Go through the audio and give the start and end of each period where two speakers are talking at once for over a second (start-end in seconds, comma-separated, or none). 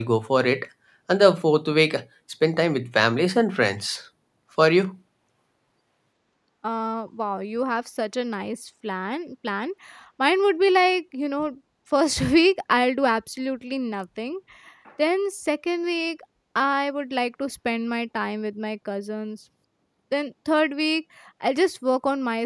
none